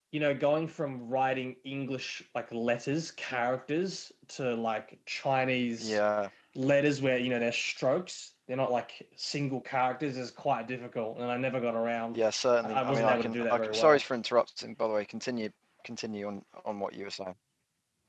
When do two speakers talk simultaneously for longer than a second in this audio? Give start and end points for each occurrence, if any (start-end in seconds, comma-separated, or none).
12.6-14.0